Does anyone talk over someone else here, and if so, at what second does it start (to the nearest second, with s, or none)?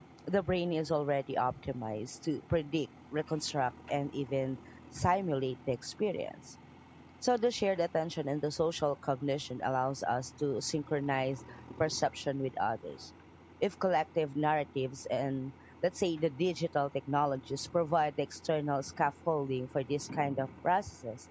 none